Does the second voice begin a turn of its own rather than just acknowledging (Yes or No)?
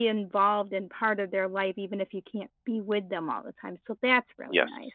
Yes